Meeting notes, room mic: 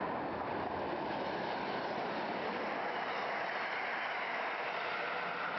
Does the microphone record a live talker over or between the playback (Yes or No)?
No